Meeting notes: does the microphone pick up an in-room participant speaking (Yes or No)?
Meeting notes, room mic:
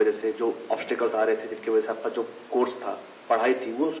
No